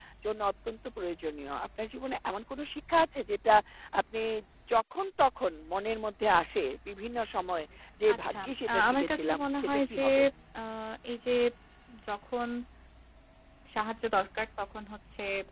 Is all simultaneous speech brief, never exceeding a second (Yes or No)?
No